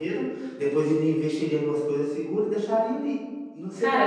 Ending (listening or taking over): listening